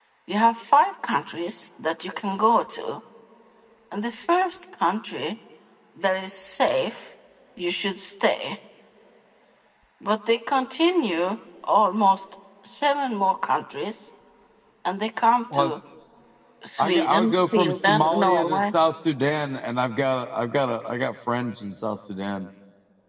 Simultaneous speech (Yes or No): Yes